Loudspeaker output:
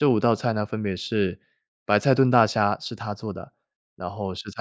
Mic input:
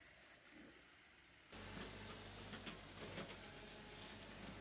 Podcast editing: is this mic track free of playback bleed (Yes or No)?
Yes